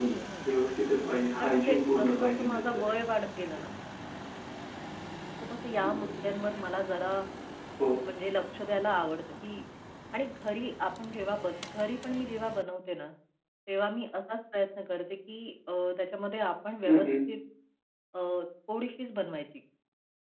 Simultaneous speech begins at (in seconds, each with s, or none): 1.4 s